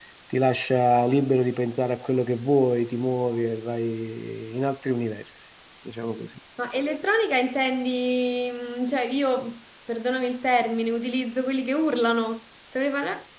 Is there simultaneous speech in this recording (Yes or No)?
No